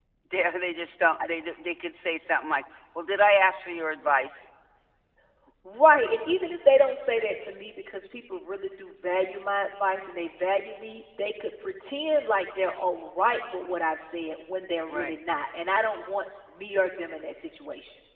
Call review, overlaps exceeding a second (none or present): none